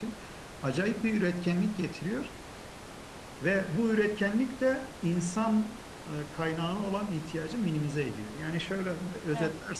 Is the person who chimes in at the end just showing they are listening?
Yes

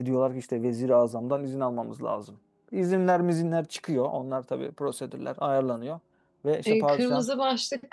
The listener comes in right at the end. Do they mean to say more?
Yes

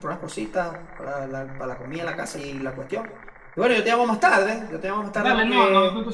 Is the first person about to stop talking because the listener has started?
Yes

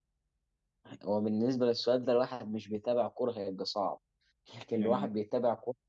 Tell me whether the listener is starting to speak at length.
No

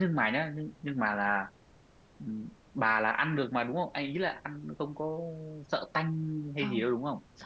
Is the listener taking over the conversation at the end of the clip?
Yes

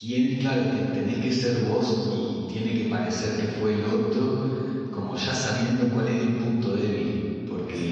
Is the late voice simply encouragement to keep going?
Yes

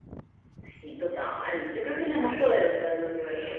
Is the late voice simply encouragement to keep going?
No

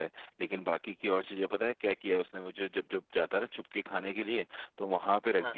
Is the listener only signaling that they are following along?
Yes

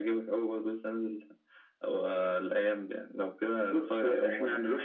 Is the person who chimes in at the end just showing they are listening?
No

